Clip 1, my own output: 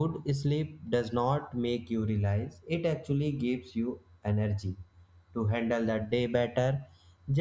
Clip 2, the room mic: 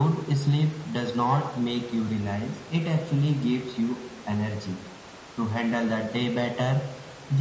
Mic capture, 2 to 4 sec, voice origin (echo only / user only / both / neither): echo only